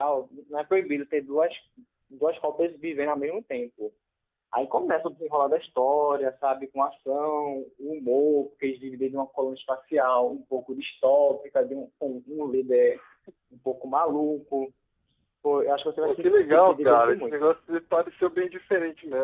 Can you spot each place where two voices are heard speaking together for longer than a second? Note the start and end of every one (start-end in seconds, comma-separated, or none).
16.0-17.5